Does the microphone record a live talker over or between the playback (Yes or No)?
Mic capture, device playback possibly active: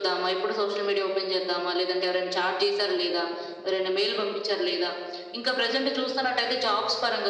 No